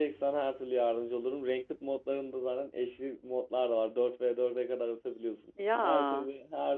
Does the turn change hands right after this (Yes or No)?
No